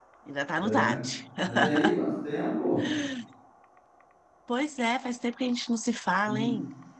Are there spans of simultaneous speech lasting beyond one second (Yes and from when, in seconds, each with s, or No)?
No